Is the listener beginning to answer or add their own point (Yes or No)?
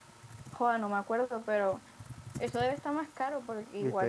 Yes